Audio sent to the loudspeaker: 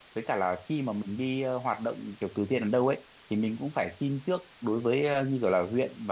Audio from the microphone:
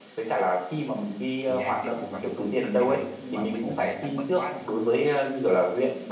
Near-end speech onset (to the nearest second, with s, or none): 1 s